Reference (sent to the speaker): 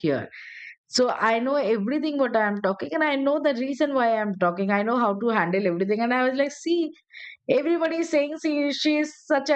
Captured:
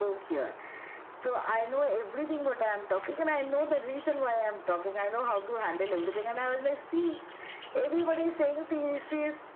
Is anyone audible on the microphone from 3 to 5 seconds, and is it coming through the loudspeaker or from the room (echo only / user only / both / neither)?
echo only